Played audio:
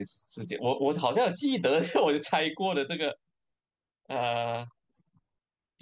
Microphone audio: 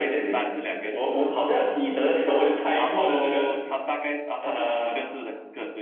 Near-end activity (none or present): present